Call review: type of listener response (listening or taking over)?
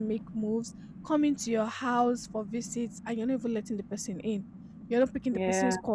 listening